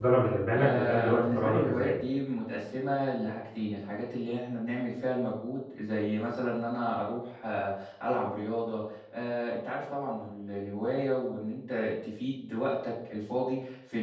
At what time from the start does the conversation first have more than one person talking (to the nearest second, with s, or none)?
1 s